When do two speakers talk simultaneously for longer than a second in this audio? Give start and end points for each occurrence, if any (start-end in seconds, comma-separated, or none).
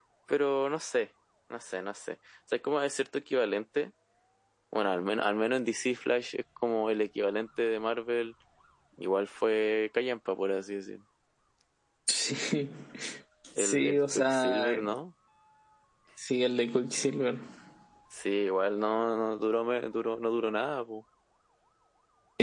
13.6-14.8